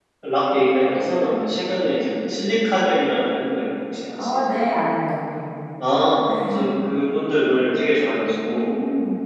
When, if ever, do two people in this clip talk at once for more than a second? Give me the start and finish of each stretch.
none

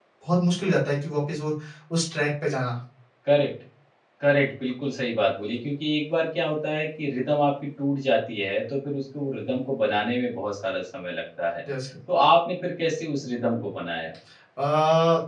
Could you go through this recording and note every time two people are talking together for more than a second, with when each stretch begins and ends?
none

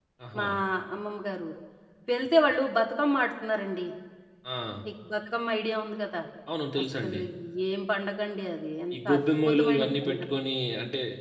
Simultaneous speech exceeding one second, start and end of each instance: 8.9-10.3

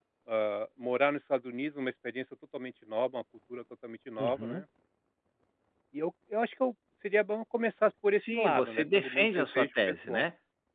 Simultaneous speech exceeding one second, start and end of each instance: 8.2-10.2

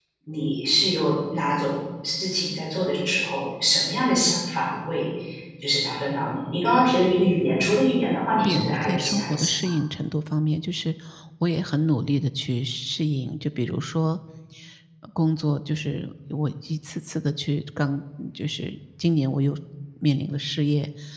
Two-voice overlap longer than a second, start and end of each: 8.4-9.7

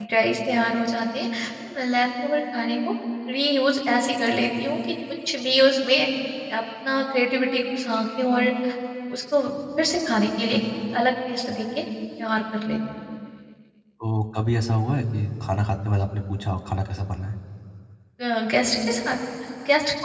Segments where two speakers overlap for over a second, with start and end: none

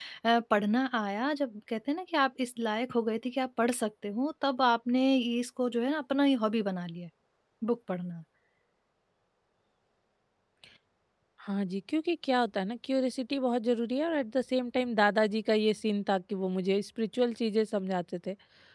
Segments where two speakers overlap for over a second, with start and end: none

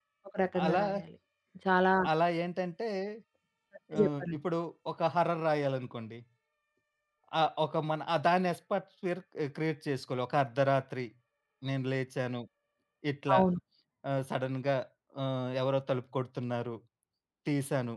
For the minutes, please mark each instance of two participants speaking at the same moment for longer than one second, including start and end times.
none

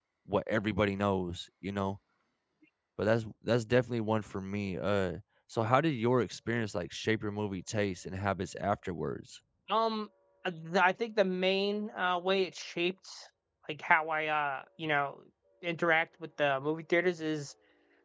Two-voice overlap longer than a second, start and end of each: none

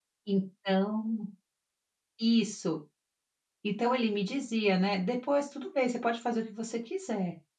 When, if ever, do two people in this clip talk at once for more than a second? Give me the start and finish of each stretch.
none

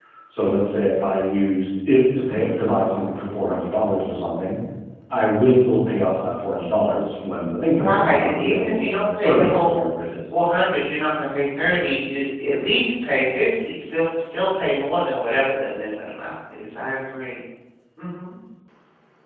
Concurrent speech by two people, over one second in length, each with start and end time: 7.7-9.8

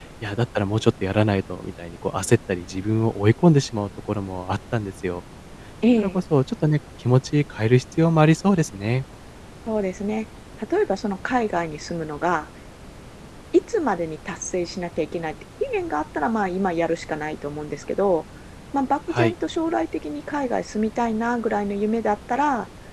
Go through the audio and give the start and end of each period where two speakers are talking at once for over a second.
none

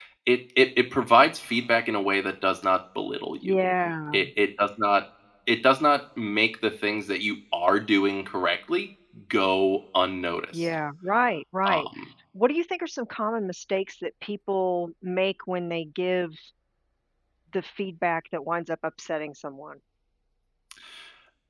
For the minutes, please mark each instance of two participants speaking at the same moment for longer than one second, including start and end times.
none

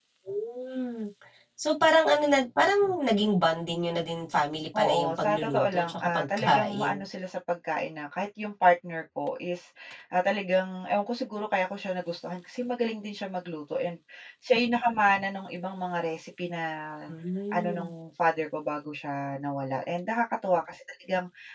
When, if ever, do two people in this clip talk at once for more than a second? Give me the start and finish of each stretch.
4.8-7.0

